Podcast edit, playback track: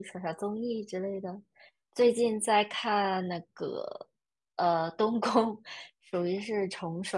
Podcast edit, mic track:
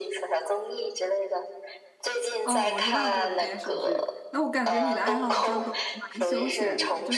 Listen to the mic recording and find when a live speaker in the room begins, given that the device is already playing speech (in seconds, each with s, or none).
2.4 s